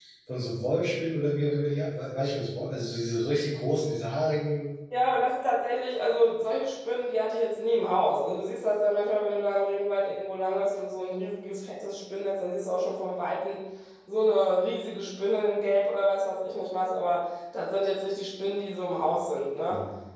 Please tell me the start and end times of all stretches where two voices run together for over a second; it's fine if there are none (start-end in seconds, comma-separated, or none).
none